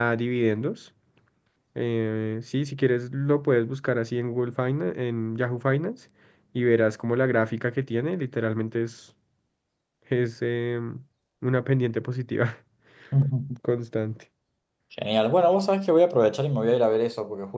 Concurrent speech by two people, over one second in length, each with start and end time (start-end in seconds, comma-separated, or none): none